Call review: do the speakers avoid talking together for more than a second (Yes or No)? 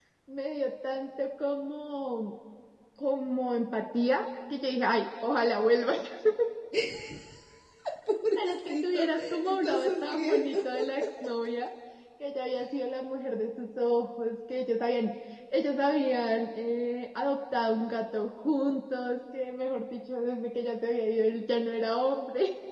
No